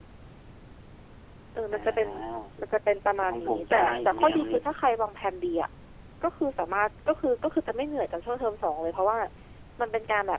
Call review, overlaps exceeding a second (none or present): present